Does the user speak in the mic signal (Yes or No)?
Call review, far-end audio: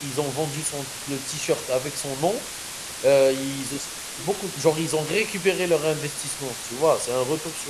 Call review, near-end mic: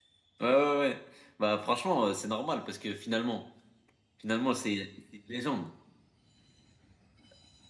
Yes